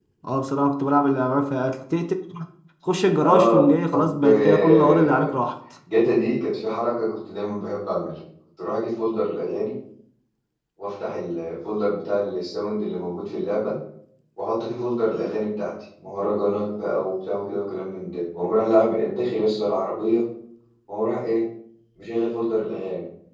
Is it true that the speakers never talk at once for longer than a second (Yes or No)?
No